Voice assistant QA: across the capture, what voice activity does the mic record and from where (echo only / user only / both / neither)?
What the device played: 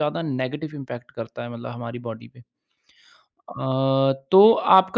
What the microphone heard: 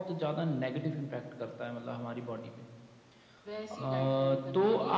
both